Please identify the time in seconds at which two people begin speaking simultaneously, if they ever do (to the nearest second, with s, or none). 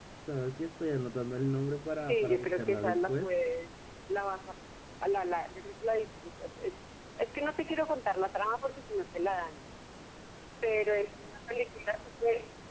2 s